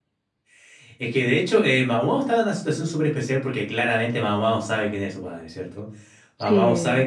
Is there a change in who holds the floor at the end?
No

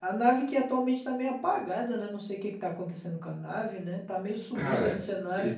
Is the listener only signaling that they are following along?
No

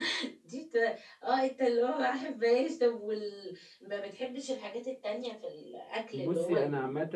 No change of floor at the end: No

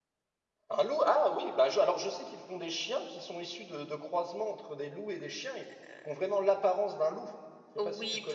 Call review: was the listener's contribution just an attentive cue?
No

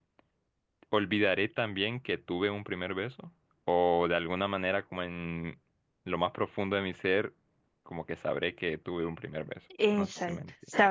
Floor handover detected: Yes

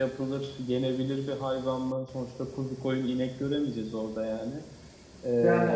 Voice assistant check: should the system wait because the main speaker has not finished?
No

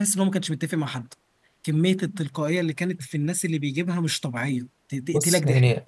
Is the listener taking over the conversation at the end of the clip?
Yes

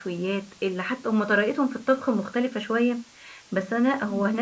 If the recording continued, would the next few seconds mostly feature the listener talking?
No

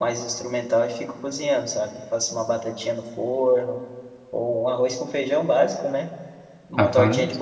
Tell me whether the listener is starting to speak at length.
No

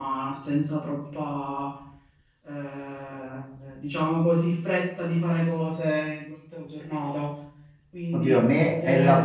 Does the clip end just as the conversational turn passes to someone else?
Yes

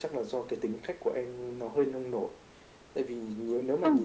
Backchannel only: Yes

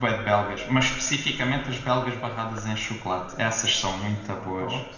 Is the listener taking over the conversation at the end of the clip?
Yes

